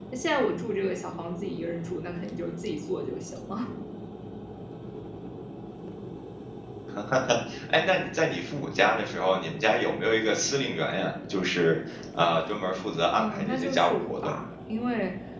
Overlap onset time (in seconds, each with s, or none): 13.1 s